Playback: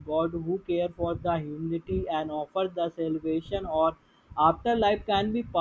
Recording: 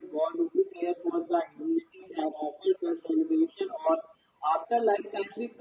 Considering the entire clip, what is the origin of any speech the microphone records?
echo only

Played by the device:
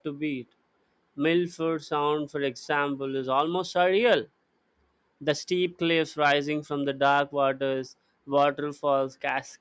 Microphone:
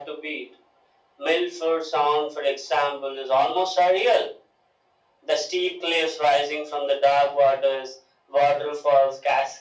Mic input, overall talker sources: echo only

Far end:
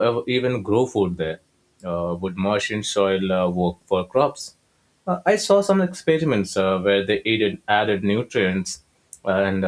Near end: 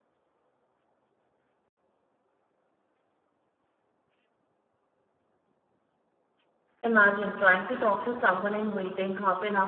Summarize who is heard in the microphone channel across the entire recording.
user only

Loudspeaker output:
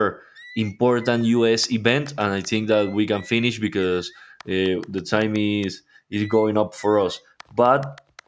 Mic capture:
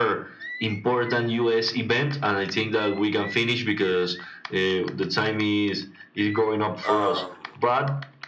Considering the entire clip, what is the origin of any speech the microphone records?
both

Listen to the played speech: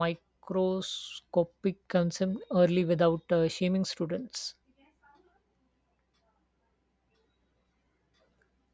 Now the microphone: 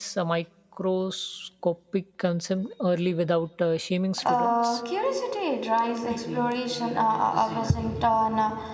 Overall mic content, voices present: both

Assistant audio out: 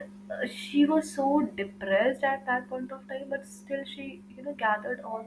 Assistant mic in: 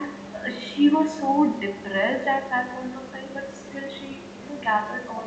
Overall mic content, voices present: echo only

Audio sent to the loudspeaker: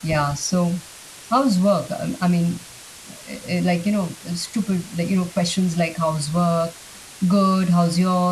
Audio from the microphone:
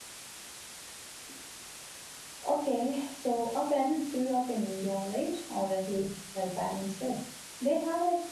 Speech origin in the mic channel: user only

